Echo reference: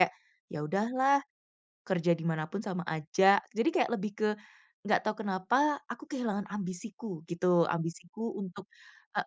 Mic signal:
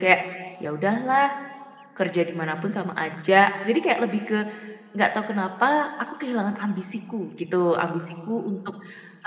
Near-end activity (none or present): none